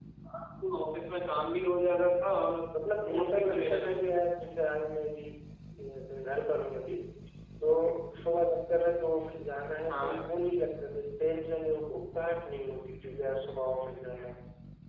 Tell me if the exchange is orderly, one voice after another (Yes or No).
No